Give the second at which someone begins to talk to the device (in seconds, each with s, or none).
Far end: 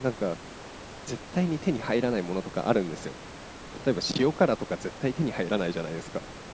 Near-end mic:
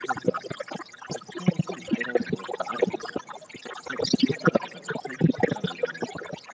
none